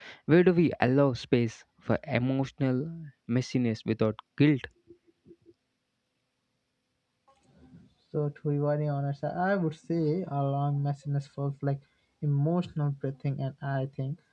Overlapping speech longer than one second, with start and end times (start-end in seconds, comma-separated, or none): none